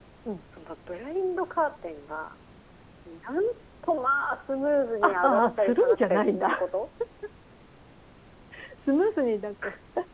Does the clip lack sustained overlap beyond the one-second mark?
No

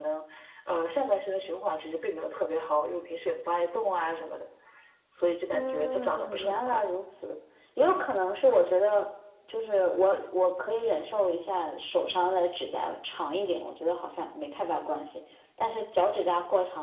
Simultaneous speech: Yes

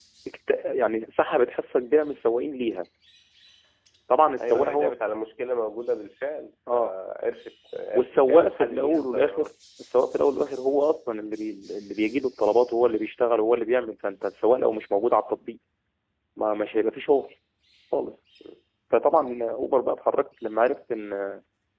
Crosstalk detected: Yes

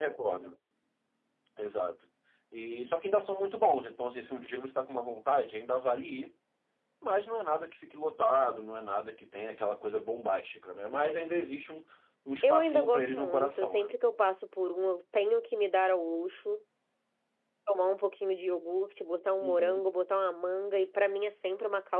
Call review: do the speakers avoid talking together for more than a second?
No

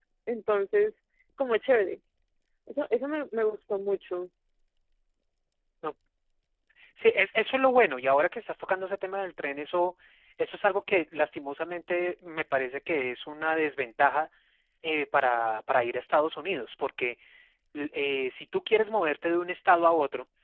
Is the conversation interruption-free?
Yes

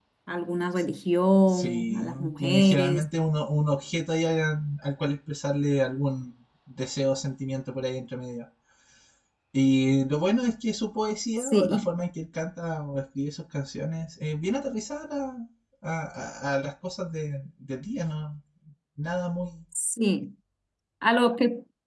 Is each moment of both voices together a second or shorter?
No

